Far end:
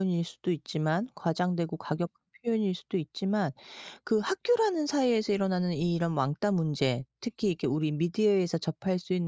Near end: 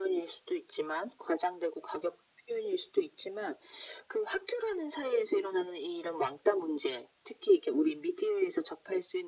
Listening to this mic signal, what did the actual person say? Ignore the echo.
none

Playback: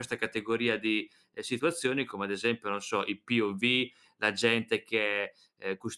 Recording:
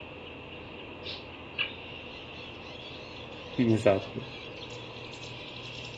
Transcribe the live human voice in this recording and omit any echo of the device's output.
Esatto.

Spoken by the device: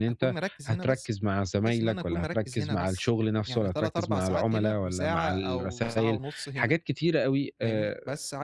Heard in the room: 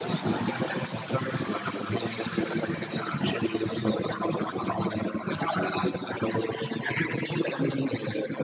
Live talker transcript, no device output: none

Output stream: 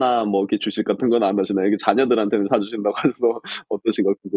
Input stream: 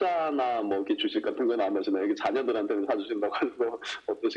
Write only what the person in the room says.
none

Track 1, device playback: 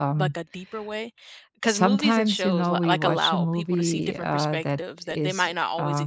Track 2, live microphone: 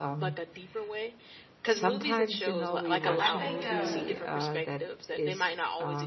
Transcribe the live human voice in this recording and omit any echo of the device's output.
I, I think um,

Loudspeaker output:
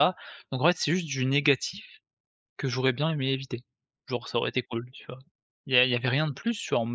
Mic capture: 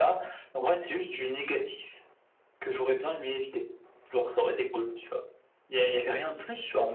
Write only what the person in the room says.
none

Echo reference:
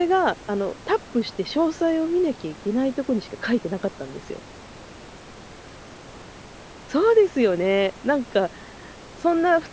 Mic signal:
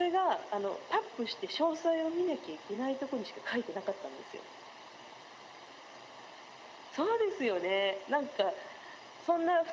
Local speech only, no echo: none

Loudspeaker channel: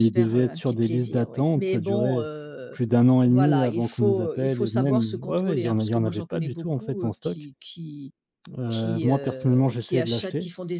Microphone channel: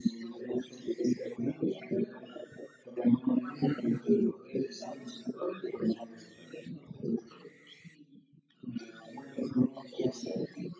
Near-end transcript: none

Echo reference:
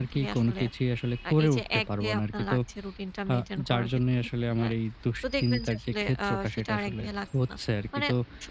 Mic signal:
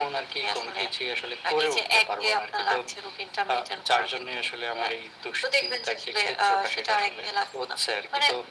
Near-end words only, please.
none

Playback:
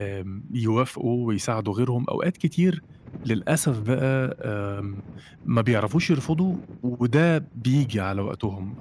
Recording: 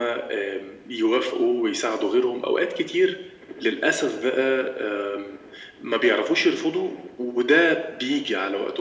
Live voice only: none

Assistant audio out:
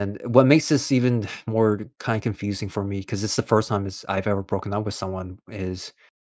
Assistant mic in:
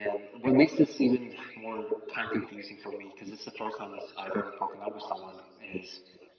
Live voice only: none

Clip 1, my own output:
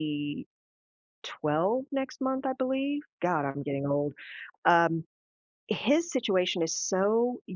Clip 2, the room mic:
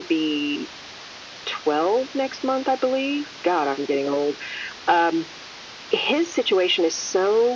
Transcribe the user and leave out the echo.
none

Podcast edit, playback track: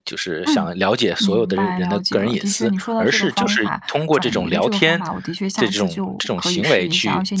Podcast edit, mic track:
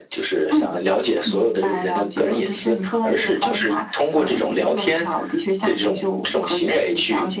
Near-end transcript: 好的，

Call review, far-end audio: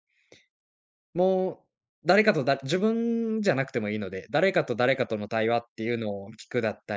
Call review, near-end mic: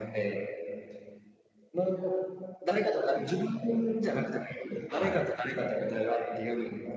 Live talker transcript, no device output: はい。

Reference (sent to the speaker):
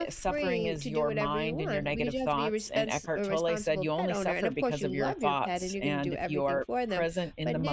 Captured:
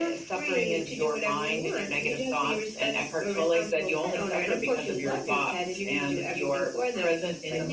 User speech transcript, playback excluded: none

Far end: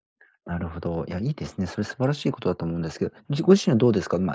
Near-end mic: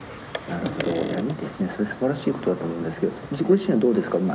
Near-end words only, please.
none

